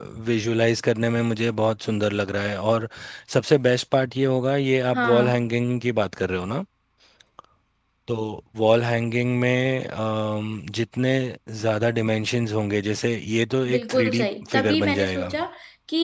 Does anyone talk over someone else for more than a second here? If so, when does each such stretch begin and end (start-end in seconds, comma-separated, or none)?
13.7-15.4